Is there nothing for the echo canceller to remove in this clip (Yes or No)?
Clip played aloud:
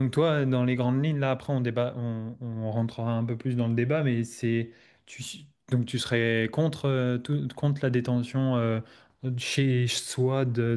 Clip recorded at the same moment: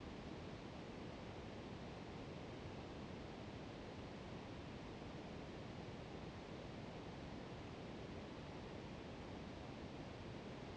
Yes